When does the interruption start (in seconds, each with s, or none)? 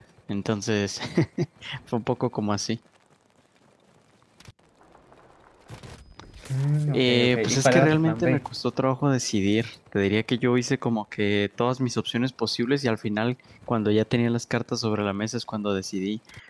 6.9 s